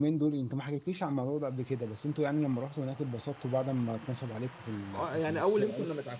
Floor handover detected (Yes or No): Yes